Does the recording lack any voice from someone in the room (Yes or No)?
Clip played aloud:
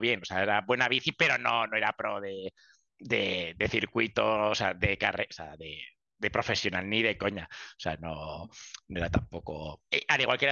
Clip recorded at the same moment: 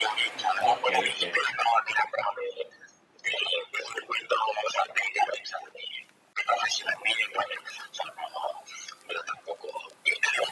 No